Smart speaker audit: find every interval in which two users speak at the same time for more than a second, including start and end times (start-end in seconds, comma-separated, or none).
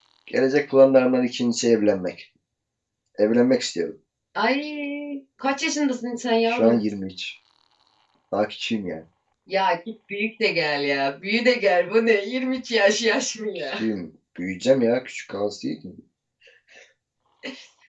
none